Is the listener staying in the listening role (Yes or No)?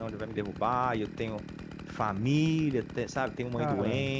Yes